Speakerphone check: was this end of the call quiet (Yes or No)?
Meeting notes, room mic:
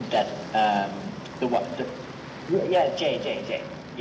Yes